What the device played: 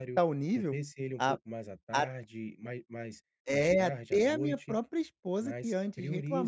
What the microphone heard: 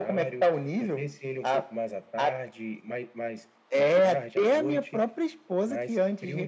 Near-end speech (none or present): none